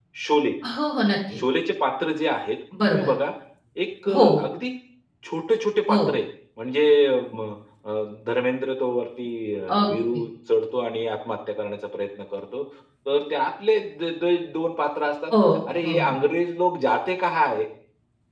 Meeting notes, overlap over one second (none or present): none